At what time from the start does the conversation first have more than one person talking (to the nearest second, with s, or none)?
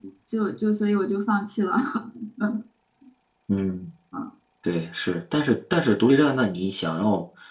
none